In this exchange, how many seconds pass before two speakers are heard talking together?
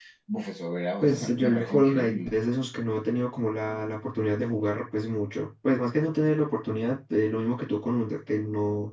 1.0 s

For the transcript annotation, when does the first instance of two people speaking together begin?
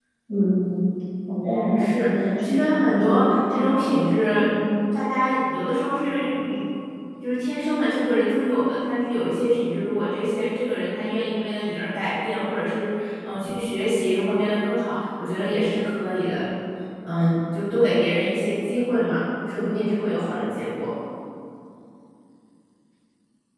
1.4 s

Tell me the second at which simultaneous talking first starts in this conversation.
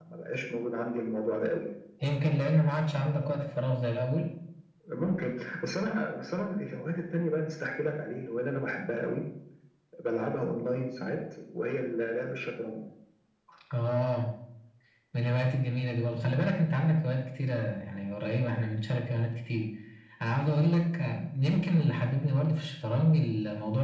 none

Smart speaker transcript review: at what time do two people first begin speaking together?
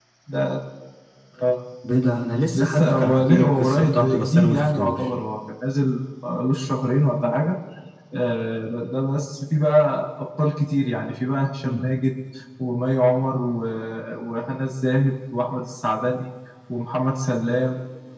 2.5 s

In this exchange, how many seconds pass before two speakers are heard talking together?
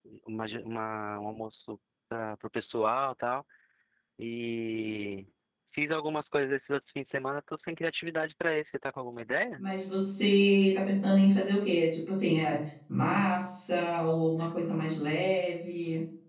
none

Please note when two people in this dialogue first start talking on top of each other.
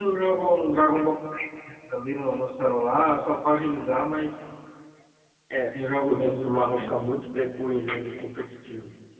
5.6 s

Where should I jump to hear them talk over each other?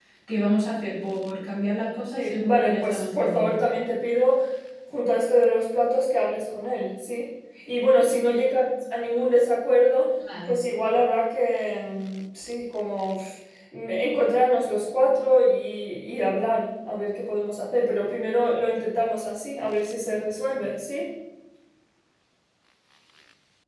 2.1 s

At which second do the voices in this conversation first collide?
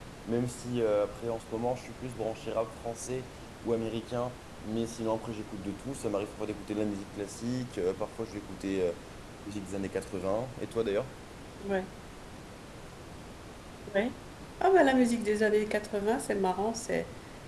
none

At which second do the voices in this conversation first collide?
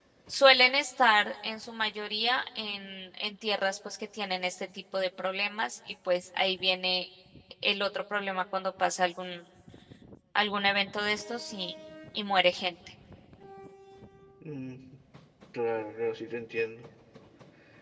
none

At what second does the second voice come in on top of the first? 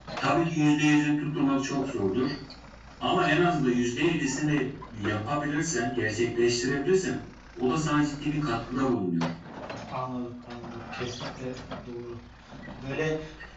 none

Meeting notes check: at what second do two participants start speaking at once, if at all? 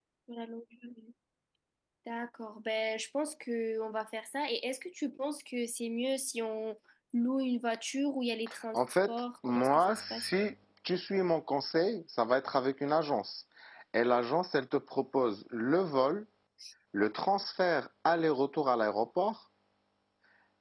8.7 s

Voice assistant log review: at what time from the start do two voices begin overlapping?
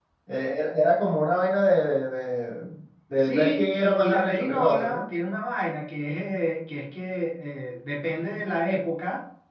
3.1 s

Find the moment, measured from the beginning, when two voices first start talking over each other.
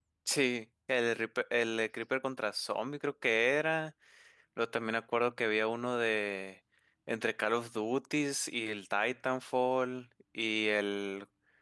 none

